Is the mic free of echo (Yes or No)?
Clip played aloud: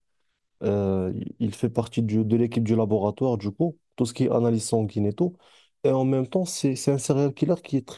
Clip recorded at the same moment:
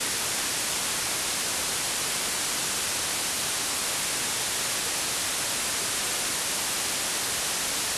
Yes